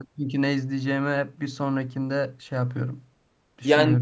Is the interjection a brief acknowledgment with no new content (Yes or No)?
No